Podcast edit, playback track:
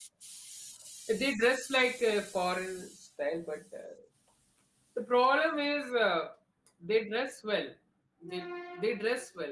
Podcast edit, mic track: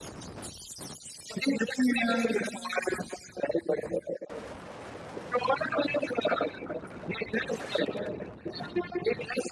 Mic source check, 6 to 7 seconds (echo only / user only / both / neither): echo only